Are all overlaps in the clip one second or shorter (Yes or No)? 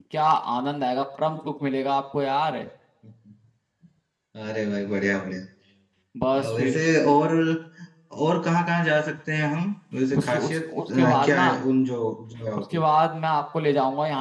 No